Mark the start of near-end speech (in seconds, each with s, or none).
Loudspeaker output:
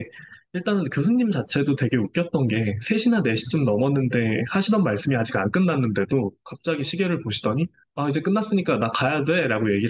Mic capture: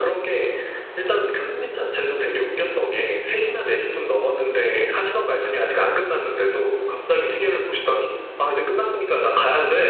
none